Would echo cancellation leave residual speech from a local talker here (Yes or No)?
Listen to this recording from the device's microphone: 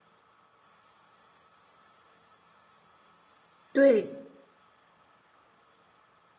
Yes